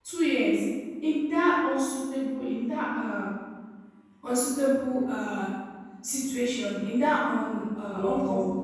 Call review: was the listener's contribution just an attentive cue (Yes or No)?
Yes